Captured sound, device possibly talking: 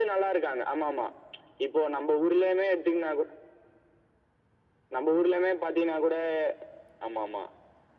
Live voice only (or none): none